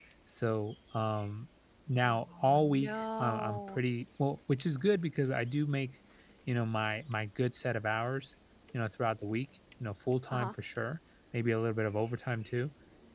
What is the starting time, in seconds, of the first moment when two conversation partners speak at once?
2 s

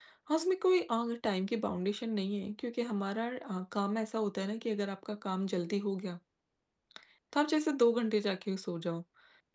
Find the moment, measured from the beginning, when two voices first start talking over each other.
none

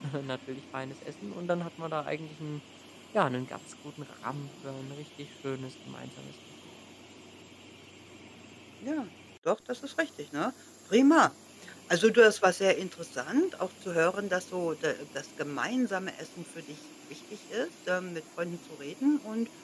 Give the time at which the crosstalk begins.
none

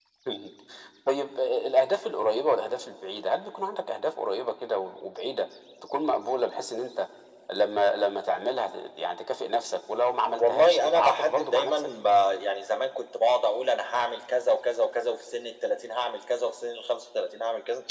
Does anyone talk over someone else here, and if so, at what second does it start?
10 s

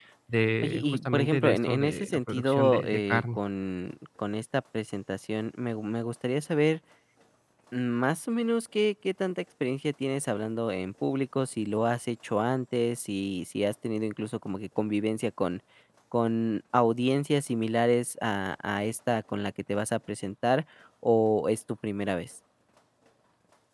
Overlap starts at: 1 s

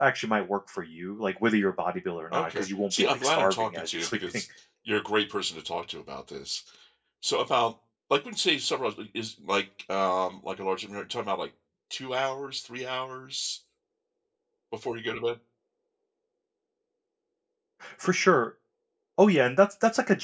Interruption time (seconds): 2 s

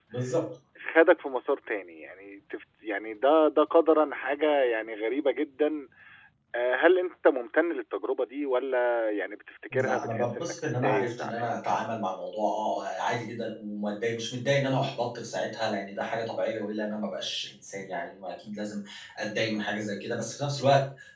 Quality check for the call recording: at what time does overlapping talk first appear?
10 s

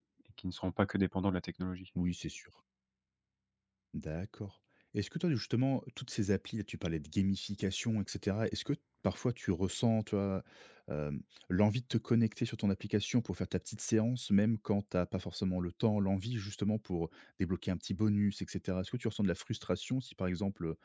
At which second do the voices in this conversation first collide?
none

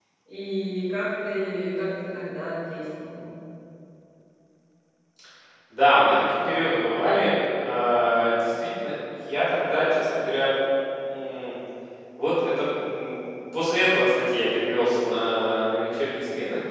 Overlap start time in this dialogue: none

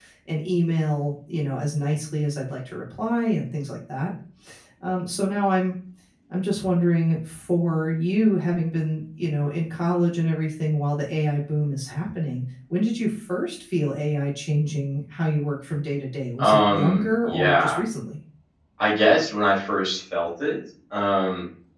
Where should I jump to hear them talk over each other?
16 s

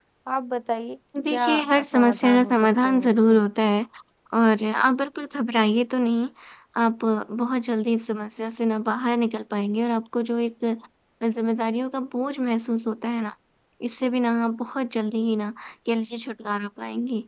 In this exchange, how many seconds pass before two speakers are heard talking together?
1 s

